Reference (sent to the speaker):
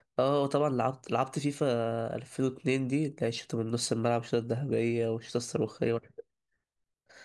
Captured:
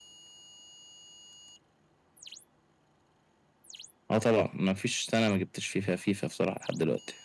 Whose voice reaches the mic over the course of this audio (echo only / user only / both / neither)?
user only